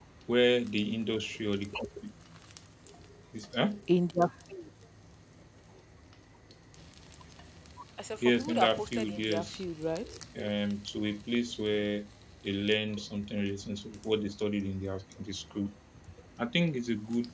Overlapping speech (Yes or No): Yes